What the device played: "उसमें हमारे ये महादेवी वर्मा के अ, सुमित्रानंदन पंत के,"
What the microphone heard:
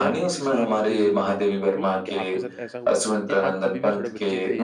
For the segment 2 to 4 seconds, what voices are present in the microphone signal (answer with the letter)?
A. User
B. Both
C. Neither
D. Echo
B